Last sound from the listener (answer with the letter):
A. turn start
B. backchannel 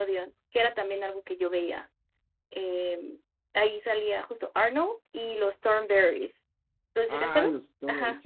A